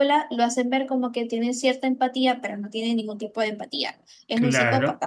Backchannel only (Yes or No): No